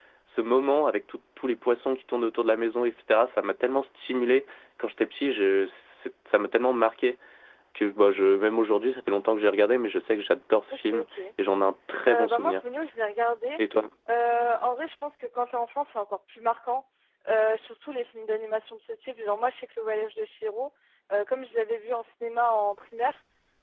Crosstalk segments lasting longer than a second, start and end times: none

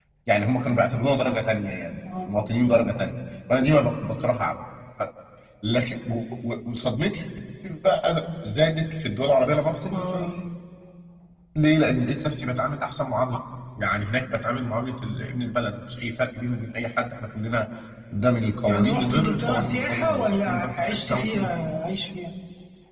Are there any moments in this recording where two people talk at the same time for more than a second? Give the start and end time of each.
18.7-21.5

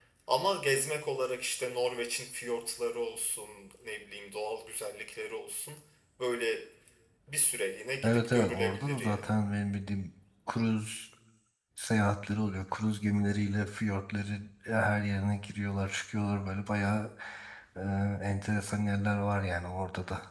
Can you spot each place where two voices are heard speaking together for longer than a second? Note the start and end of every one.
8.0-9.4

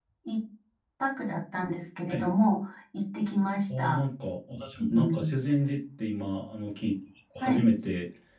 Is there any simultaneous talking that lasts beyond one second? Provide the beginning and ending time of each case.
none

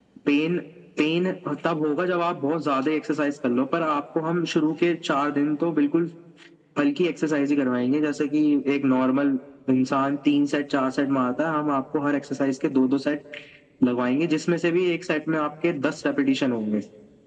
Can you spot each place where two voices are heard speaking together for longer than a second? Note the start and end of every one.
none

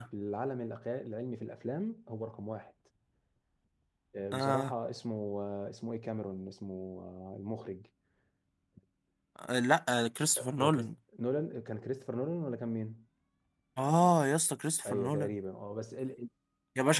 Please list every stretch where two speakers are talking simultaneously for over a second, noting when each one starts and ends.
none

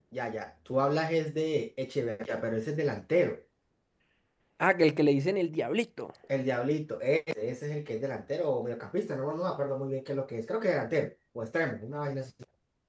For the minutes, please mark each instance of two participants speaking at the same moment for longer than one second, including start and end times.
none

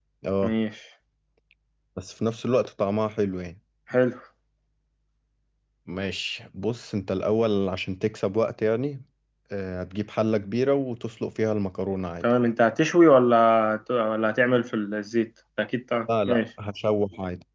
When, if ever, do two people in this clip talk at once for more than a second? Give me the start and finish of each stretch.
none

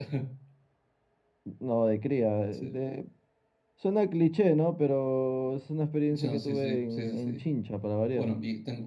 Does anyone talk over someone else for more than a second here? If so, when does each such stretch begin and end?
6.1-7.5

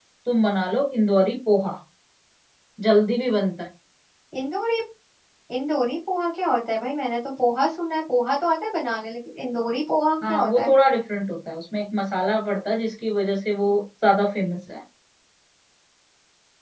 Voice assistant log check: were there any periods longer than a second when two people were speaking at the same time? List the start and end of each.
none

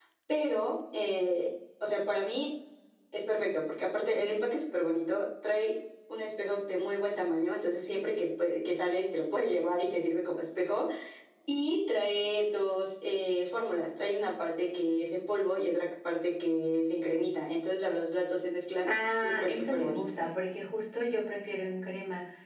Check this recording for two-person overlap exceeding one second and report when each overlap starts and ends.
18.9-20.1

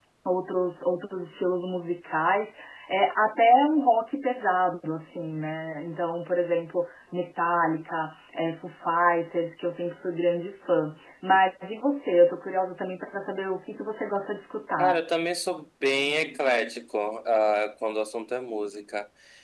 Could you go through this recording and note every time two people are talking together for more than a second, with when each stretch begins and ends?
none

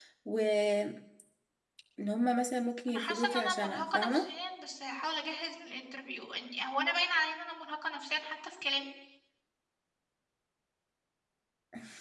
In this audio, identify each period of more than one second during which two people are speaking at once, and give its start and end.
2.9-4.3

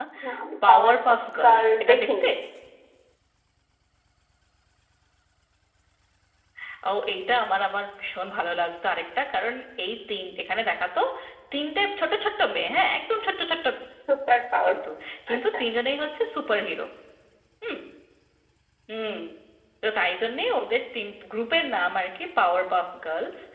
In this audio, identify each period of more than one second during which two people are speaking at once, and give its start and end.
0.7-2.3

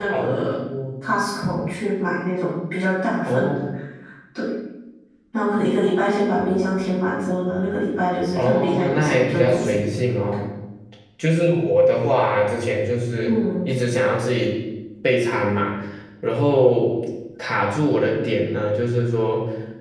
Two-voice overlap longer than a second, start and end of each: 8.3-9.7

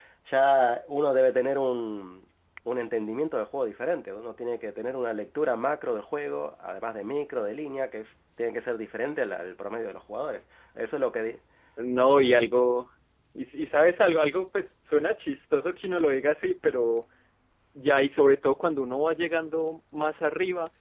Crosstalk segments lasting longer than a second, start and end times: none

